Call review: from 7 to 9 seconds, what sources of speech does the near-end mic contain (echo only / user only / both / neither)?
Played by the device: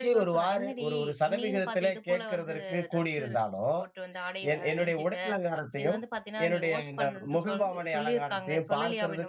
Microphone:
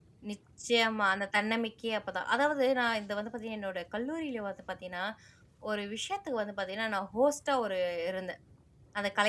user only